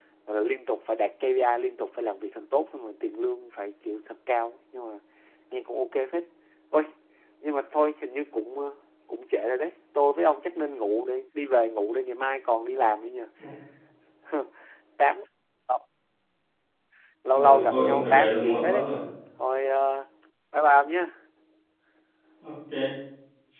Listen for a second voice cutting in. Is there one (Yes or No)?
Yes